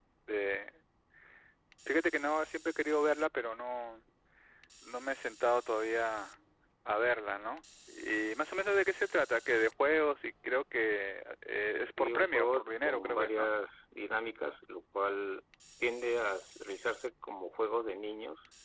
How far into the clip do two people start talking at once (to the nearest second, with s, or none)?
12 s